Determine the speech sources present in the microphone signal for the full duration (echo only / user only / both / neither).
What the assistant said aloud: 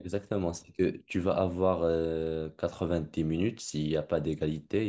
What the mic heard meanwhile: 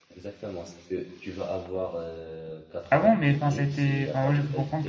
both